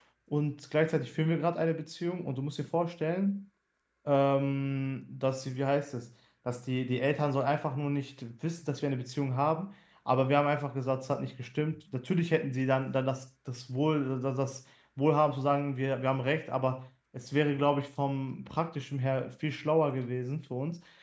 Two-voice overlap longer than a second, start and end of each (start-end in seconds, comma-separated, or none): none